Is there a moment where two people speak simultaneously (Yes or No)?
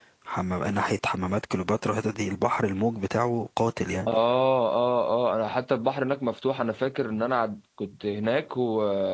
No